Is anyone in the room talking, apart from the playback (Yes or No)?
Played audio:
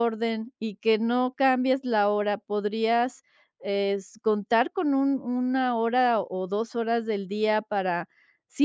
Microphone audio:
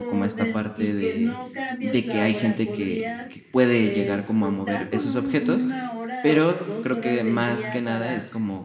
Yes